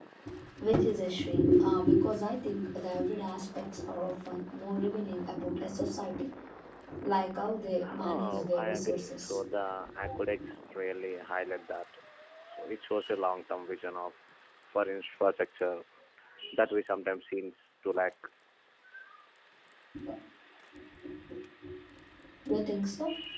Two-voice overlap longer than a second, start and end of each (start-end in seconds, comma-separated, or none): 8.0-9.4